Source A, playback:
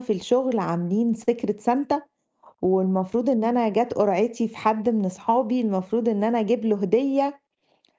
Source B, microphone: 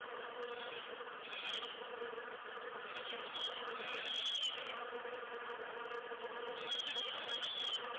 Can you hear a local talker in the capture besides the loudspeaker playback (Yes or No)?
No